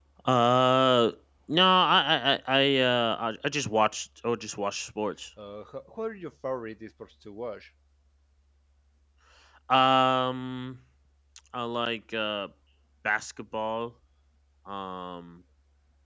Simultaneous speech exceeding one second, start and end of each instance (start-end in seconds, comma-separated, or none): none